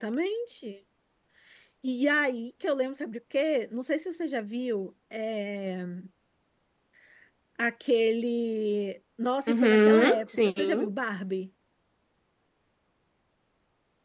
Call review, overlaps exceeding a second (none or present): present